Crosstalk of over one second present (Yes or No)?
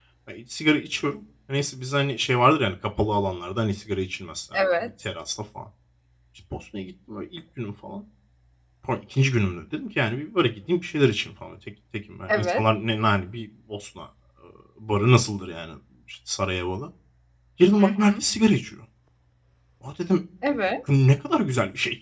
No